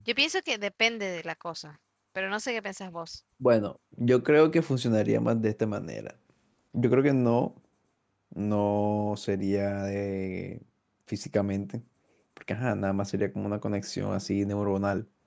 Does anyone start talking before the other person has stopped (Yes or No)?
No